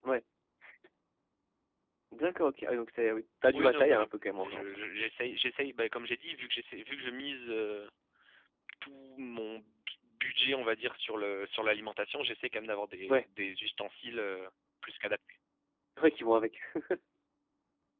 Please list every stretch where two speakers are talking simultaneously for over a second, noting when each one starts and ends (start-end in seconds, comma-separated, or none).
3.6-4.8